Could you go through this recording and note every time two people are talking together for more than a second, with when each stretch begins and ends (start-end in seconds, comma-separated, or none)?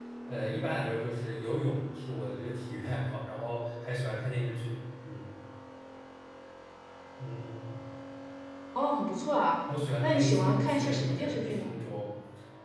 10.0-11.7